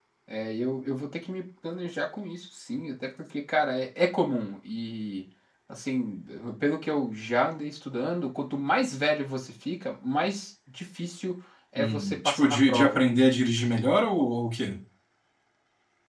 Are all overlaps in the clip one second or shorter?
No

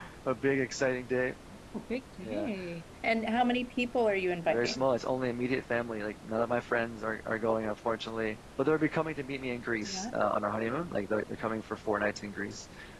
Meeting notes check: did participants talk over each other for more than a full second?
No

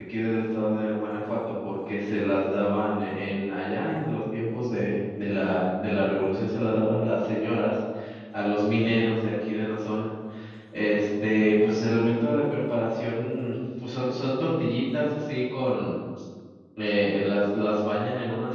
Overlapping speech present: No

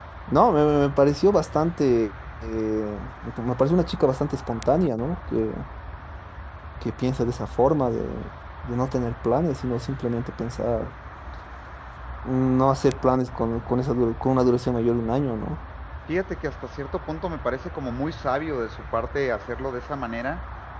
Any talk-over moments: No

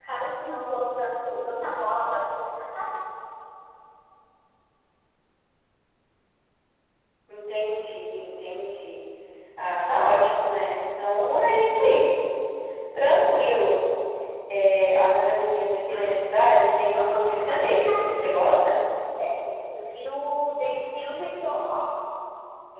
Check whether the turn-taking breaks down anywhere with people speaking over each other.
Yes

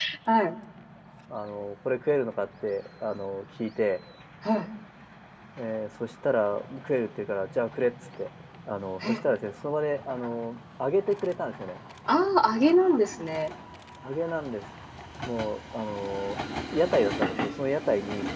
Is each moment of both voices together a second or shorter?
Yes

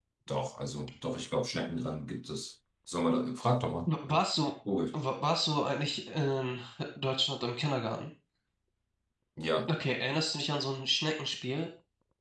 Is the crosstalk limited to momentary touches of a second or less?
Yes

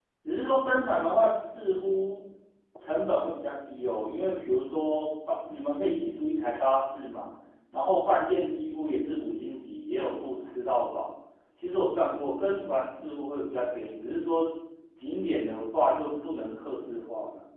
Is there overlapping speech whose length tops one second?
No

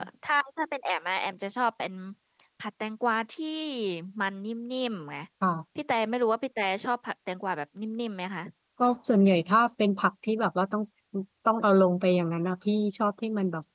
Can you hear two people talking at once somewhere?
No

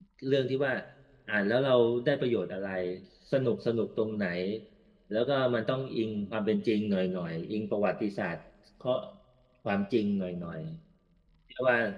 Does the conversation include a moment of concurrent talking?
No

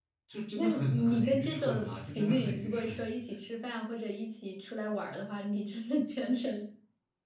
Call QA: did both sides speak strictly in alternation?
No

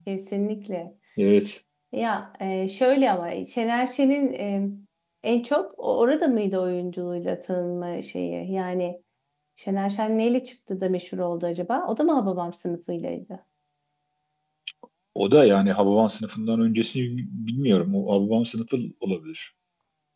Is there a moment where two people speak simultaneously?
No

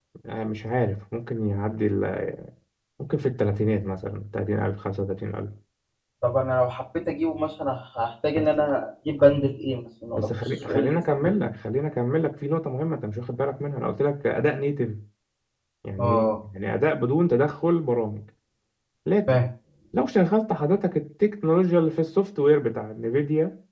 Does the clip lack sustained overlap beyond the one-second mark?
No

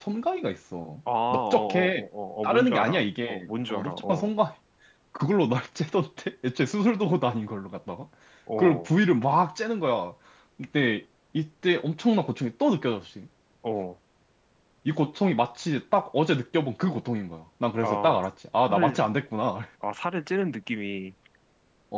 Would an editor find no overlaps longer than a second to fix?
No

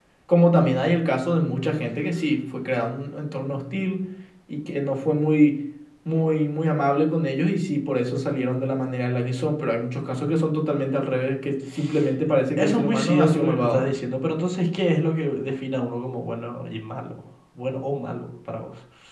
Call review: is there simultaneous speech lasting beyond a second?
Yes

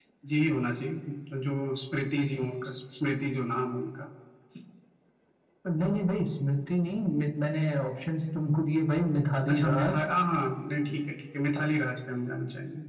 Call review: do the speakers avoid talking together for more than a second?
Yes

